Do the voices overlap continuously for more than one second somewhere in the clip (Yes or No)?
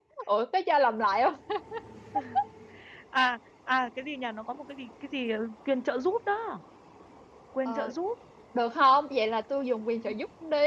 No